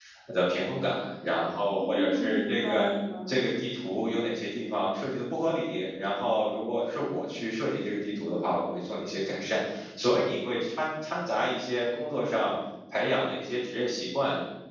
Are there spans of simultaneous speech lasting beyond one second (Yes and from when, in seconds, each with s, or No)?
Yes, from 1.7 s